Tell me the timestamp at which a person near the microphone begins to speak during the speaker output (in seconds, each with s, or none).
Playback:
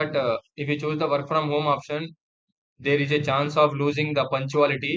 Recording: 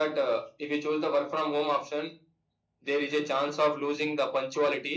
none